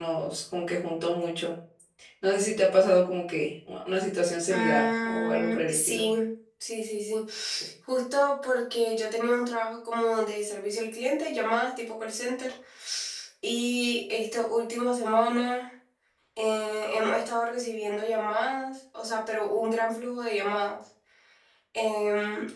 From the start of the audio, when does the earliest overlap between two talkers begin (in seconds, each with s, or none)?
4.5 s